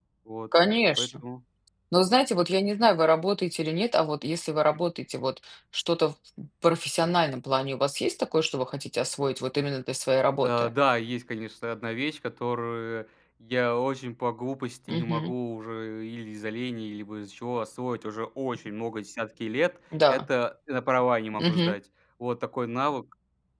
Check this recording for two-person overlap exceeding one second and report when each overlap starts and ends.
none

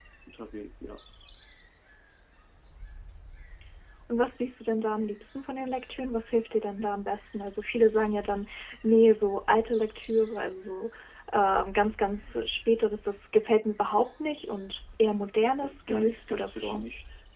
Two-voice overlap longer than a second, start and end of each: 15.6-16.8

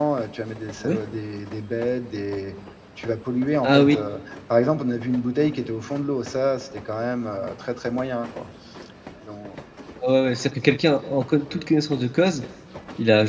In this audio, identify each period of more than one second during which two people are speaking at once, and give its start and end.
none

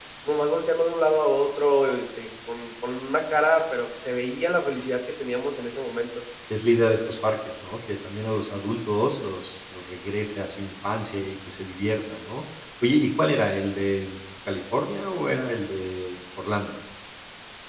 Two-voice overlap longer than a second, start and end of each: none

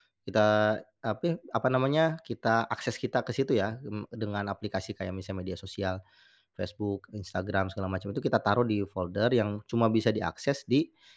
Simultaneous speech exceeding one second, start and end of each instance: none

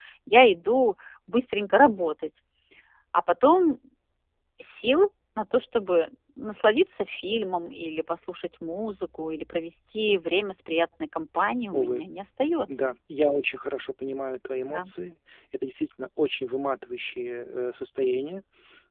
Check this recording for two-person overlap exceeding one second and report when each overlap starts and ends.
none

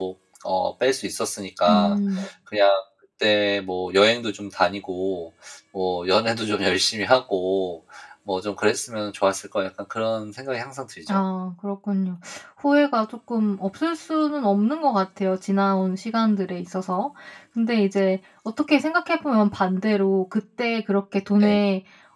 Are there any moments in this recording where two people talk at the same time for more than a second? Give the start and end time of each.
none

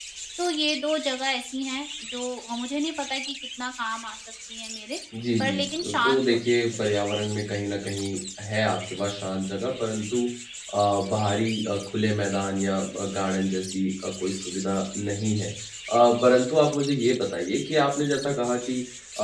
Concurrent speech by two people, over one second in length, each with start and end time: 5.4-6.8

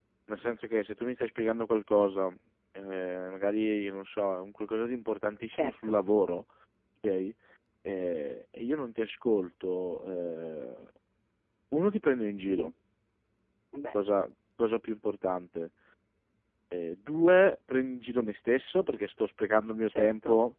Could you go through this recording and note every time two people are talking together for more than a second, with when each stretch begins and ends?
none

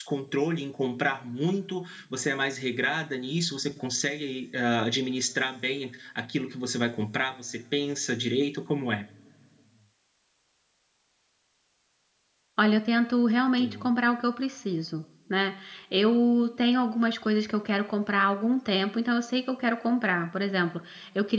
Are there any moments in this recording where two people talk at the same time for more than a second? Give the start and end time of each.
none

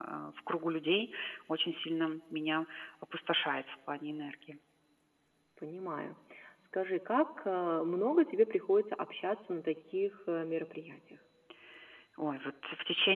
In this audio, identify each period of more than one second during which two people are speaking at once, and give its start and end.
none

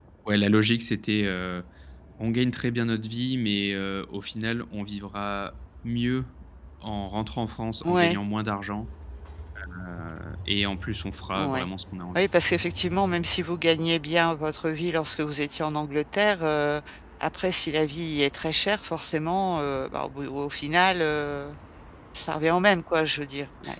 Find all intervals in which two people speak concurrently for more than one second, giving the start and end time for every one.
none

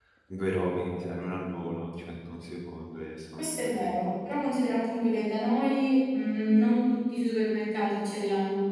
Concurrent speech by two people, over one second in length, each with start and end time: none

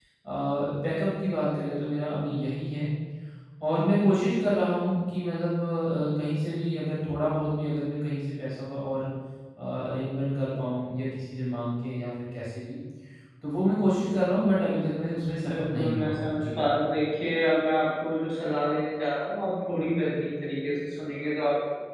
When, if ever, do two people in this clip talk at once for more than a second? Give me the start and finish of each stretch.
15.4-16.6

